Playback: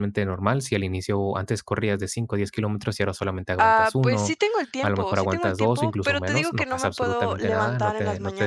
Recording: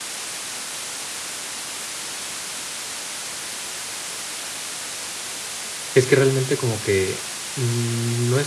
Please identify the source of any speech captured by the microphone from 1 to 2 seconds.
neither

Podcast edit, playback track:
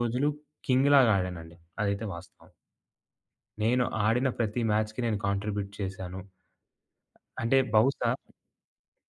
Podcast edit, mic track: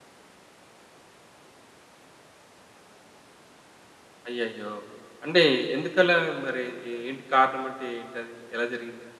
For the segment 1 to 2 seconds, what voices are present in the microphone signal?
neither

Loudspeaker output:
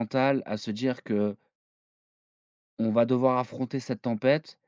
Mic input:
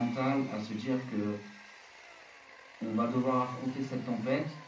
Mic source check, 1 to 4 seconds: echo only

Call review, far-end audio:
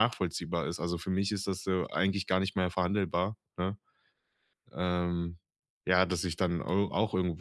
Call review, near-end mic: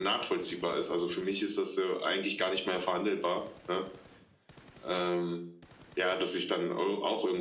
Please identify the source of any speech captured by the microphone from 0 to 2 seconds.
echo only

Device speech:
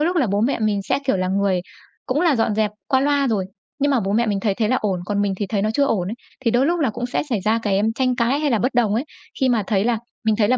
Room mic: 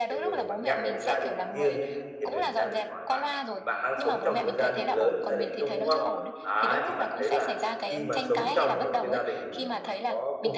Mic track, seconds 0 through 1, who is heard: both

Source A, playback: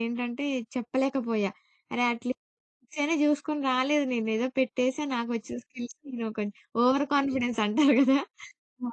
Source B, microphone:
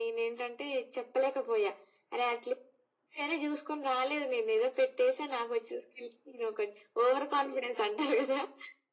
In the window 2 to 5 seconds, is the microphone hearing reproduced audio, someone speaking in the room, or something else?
echo only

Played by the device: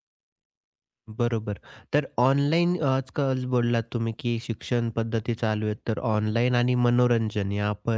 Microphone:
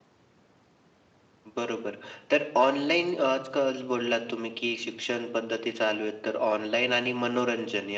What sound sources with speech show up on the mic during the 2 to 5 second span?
echo only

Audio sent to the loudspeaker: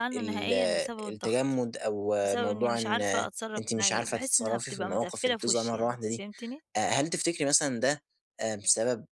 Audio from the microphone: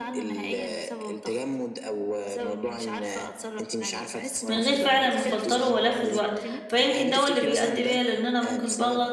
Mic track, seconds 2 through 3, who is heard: echo only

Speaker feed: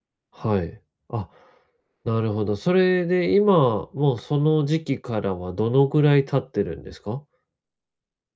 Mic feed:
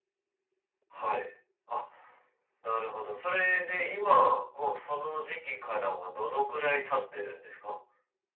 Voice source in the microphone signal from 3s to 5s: echo only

